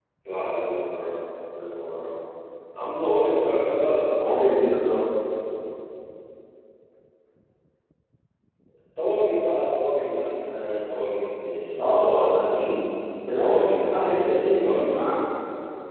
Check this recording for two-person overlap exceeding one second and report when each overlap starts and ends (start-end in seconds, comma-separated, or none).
13.4-14.8